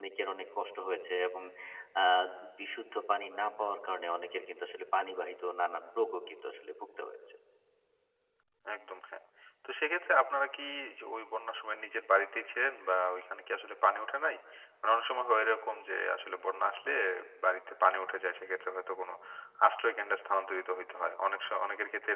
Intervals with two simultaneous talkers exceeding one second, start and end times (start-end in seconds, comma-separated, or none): none